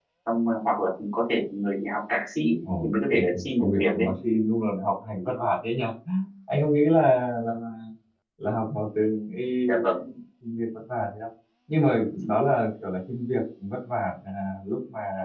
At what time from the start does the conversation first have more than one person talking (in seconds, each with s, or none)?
2.8 s